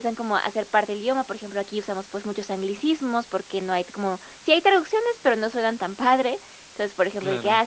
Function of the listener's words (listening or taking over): listening